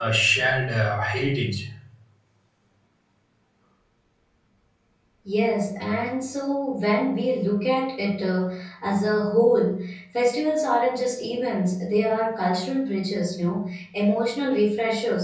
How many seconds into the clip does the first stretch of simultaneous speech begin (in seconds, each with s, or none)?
none